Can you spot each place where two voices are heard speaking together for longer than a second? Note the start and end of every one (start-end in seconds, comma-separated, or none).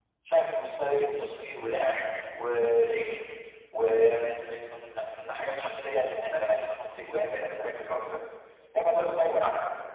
none